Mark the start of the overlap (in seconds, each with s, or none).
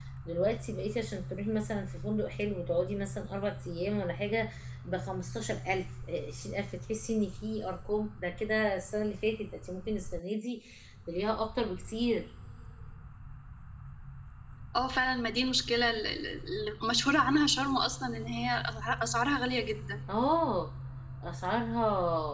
none